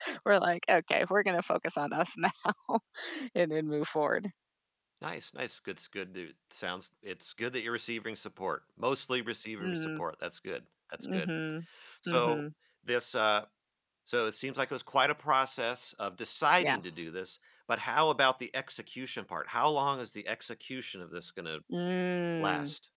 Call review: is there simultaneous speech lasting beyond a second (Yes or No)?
No